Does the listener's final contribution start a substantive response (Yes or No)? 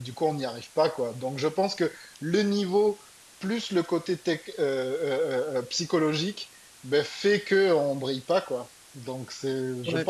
Yes